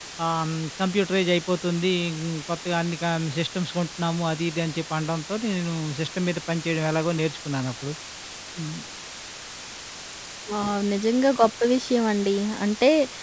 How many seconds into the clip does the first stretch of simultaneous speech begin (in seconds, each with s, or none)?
none